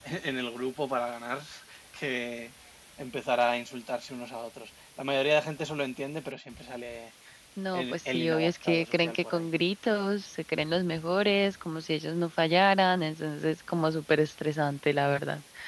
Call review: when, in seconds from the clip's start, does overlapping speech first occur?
7.7 s

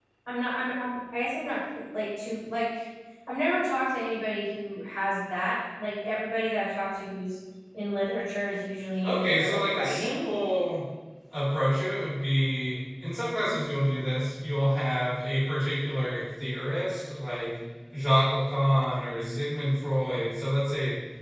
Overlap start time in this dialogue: 9.0 s

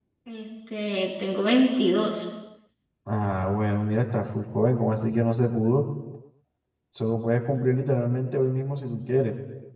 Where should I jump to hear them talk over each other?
none

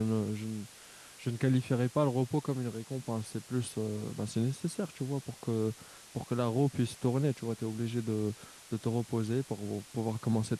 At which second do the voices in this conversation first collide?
none

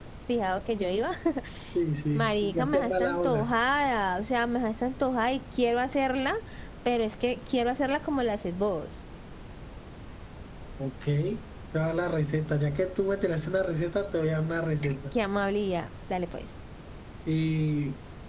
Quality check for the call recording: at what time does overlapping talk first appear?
2.1 s

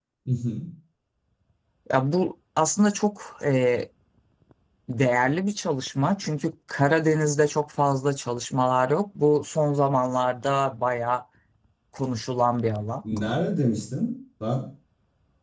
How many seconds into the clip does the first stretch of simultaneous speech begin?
none

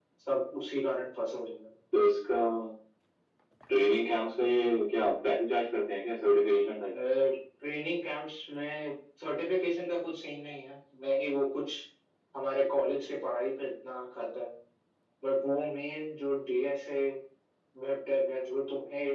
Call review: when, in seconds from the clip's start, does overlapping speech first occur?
none

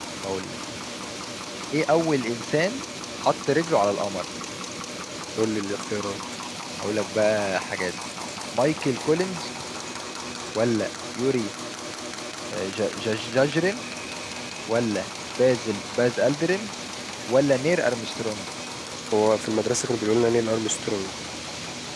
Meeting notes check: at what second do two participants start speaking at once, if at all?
none

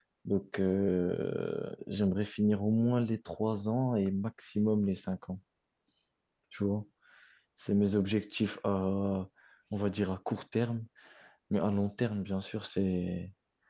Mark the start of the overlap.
none

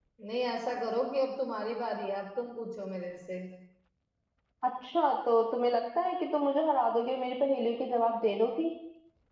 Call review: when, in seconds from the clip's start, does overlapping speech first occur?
none

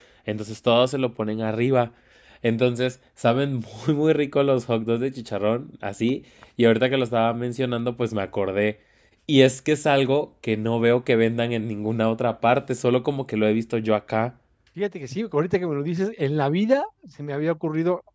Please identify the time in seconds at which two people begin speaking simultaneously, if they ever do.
none

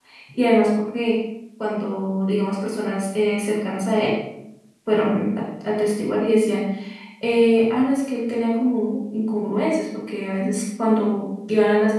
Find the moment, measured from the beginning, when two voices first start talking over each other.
none

